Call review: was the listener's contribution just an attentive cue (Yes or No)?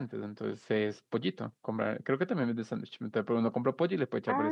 No